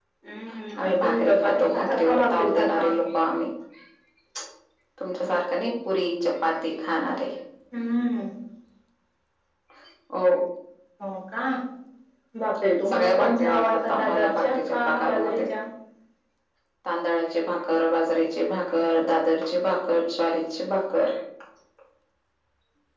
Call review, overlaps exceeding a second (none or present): present